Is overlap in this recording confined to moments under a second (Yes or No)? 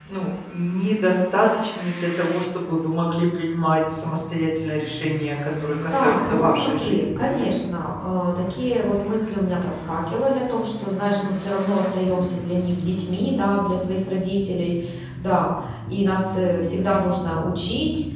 No